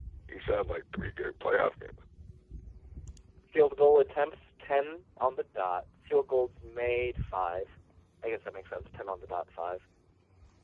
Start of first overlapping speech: none

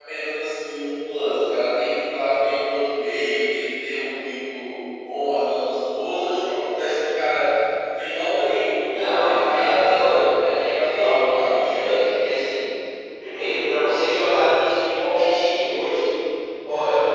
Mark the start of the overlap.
8.8 s

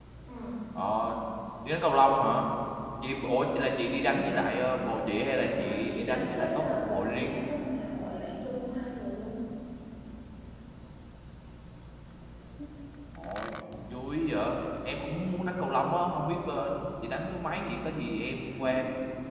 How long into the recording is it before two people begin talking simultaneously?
5.6 s

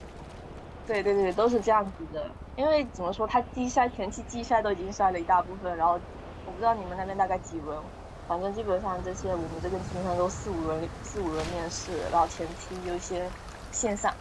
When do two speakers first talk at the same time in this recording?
none

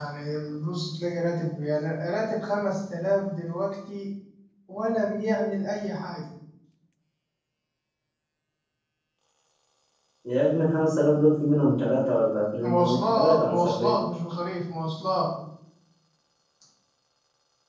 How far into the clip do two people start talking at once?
12.6 s

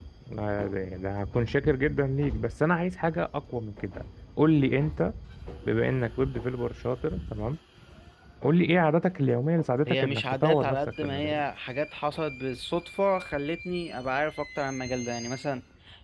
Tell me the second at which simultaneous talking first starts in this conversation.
9.9 s

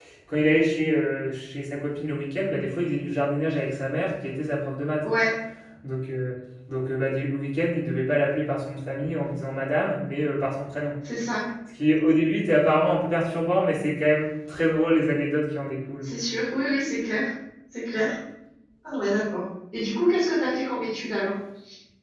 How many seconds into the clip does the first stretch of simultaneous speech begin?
none

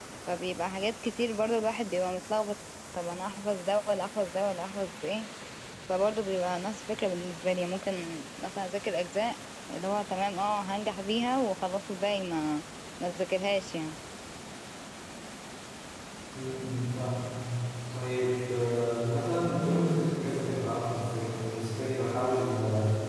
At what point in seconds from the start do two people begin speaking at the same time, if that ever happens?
none

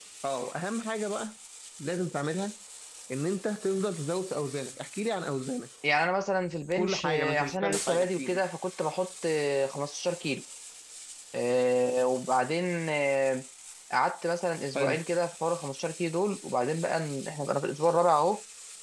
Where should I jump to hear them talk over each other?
6.8 s

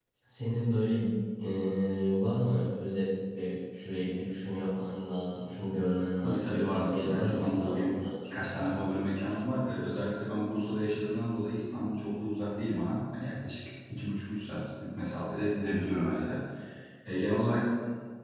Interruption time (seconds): 6.2 s

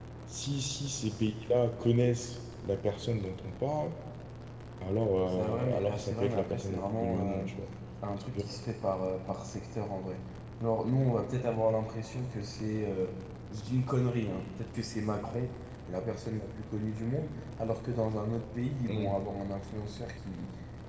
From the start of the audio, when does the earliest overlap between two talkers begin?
5.3 s

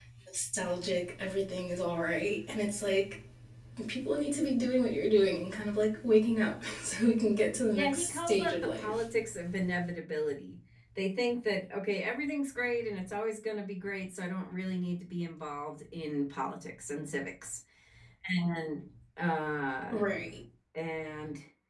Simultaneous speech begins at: 7.7 s

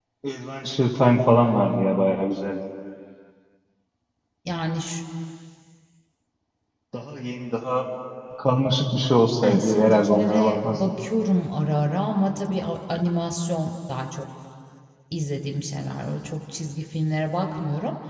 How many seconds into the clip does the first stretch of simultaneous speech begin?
9.4 s

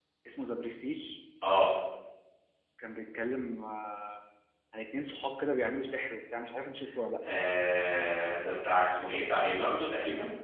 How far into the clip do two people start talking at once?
none

